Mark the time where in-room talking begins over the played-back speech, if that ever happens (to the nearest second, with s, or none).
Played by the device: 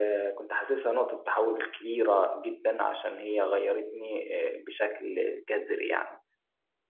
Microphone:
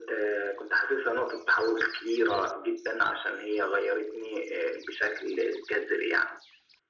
none